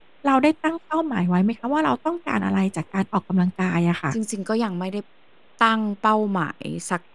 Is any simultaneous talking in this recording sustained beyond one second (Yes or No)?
No